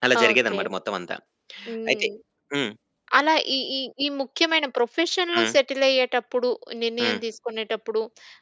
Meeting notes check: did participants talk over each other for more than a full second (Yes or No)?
No